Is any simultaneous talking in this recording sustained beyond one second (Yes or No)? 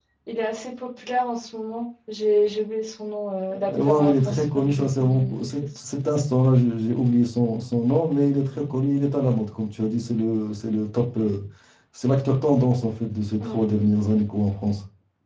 Yes